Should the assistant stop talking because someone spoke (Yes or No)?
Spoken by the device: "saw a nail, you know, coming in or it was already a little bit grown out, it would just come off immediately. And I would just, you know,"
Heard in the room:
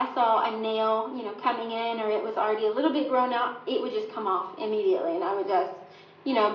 No